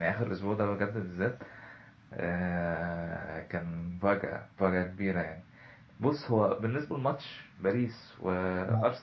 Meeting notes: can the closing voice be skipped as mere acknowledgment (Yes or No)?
Yes